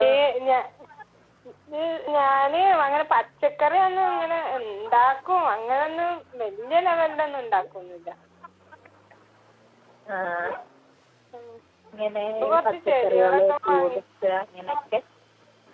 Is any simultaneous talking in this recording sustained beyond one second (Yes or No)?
Yes